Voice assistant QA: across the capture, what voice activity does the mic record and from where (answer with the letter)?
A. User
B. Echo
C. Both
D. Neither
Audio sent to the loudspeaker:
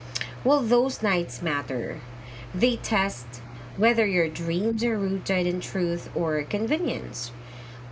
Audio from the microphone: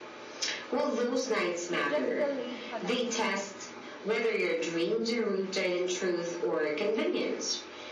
C